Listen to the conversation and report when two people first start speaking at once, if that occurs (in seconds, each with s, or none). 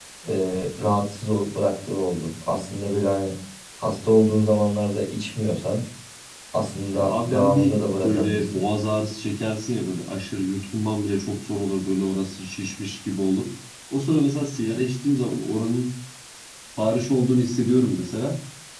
6.9 s